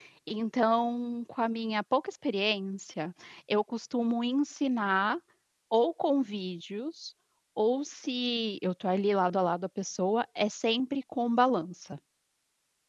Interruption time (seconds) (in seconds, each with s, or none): none